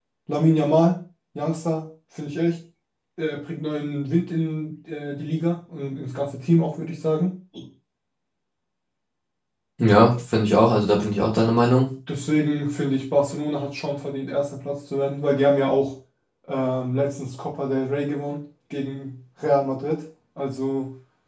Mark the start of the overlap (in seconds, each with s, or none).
none